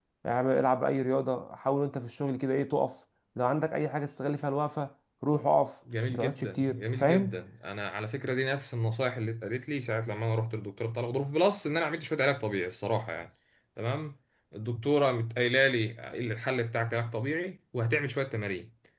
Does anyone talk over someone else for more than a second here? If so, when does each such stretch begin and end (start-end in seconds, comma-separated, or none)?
6.1-7.4